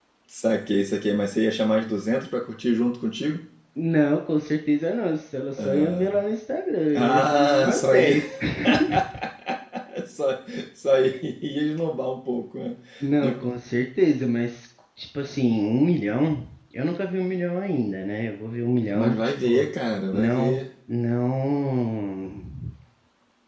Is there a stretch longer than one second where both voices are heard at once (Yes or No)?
Yes